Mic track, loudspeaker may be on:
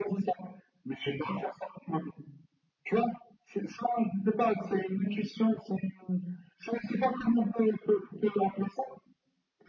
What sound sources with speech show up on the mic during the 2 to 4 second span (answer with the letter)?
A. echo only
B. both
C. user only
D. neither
A